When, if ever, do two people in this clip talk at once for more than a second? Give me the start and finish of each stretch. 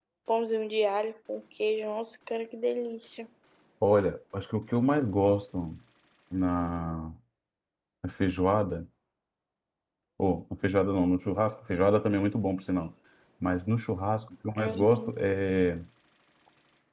none

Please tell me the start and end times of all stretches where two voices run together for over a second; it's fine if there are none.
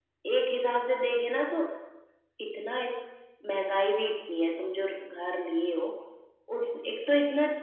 none

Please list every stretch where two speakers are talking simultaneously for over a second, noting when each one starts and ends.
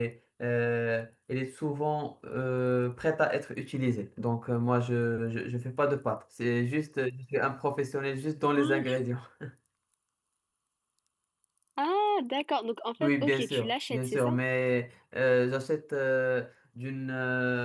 13.0-14.3

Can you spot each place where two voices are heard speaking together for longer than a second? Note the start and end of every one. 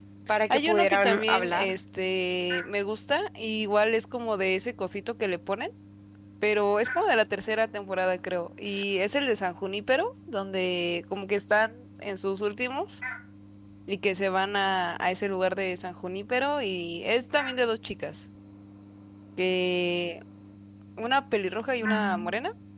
0.5-1.7

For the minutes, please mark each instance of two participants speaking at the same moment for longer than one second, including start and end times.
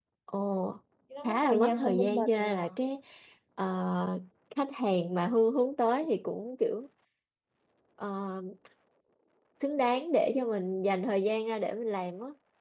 1.2-2.6

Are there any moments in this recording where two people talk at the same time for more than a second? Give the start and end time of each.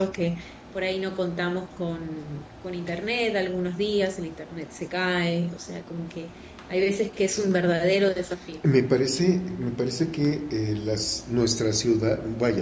none

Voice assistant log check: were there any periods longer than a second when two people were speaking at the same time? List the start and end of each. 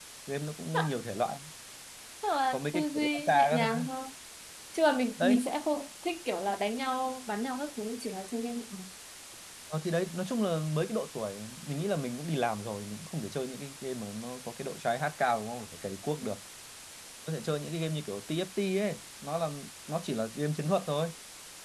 2.5-3.8

